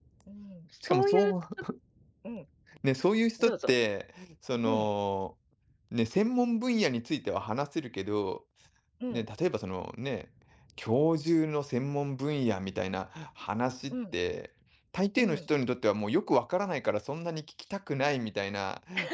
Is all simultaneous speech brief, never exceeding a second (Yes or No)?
Yes